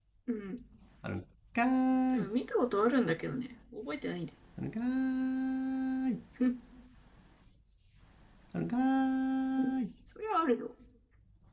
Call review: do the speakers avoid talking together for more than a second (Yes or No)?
Yes